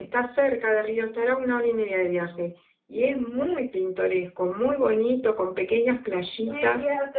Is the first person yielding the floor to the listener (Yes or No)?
Yes